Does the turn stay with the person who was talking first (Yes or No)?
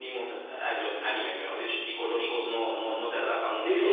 No